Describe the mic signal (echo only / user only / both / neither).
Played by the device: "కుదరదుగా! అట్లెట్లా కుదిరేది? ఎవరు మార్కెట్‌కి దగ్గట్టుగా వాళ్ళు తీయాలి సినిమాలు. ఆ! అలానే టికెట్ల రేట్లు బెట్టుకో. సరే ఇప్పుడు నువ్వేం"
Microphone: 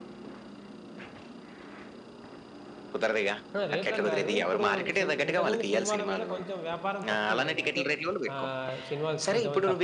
both